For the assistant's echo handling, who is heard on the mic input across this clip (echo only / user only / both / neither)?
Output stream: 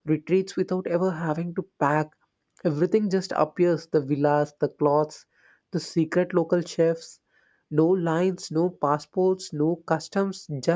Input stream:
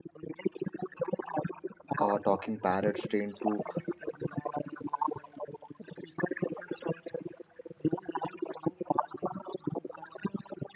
both